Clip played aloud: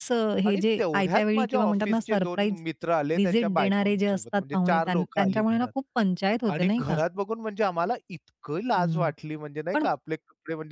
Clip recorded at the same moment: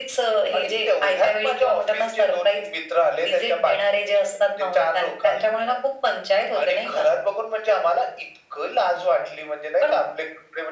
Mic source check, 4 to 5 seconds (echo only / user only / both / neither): echo only